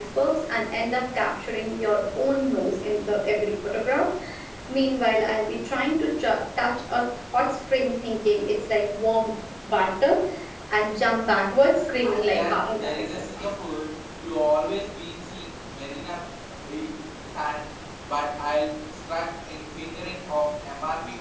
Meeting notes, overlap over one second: present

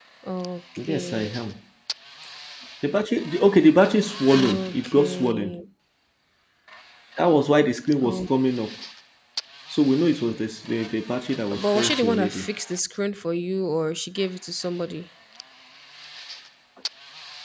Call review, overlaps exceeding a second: present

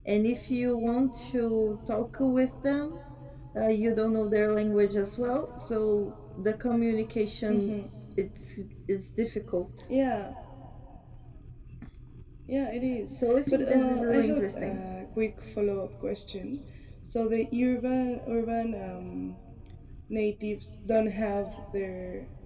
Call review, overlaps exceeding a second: present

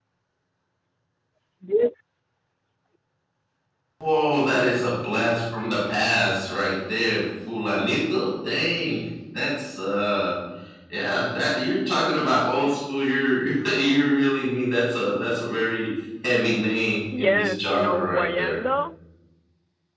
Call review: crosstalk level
present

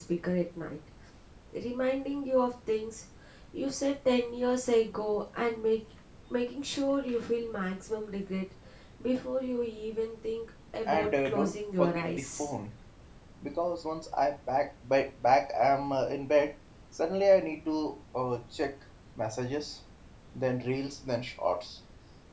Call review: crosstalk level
present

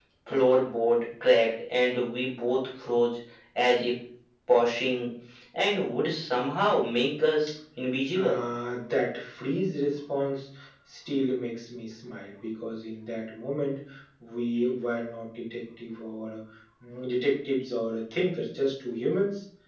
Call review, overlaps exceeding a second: none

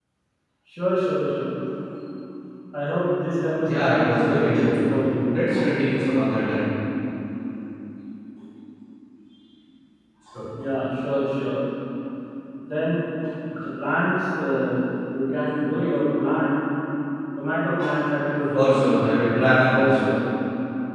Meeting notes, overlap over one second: present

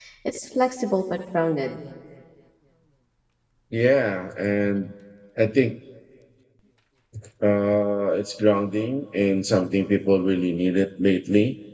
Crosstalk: none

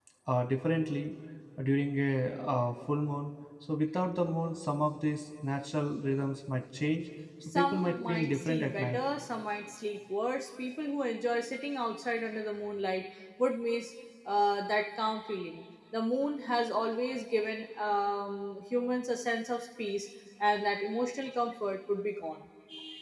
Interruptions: present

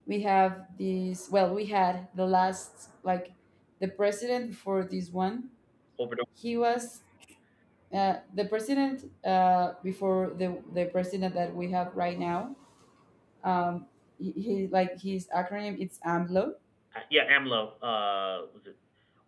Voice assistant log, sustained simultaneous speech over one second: none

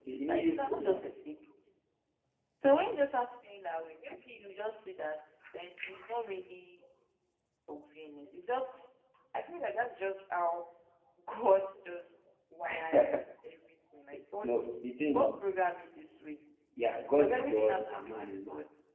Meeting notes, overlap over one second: present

